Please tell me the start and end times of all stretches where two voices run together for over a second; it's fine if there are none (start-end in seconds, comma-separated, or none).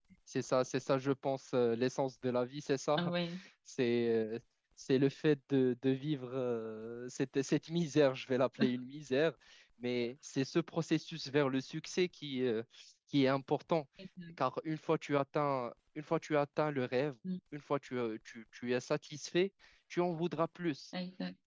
none